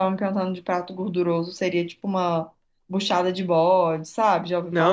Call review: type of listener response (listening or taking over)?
taking over